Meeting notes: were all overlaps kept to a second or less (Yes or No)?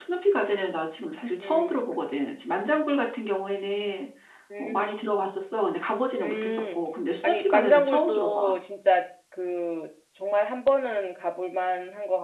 No